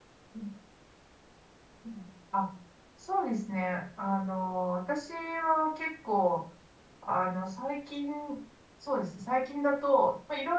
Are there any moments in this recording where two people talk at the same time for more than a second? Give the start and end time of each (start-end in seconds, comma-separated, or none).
none